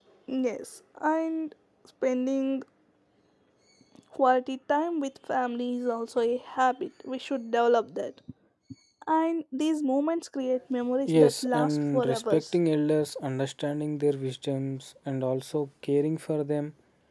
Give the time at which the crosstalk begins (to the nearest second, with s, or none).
11 s